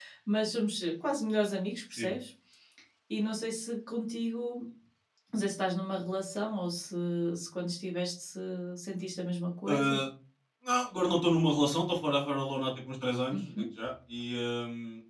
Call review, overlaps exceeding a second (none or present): none